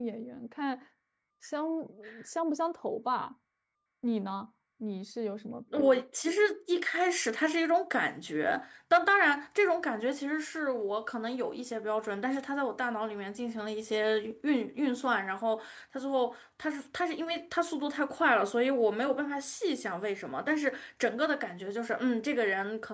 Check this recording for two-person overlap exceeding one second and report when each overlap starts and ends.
none

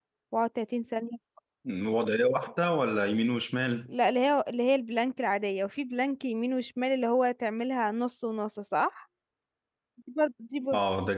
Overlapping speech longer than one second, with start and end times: none

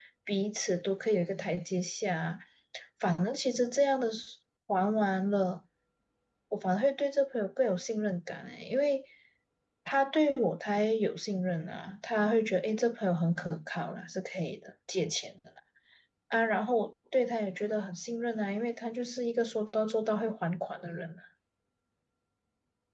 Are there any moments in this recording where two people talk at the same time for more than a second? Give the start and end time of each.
none

